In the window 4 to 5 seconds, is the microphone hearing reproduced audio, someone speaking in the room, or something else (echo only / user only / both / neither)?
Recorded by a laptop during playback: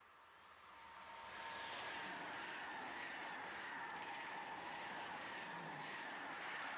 neither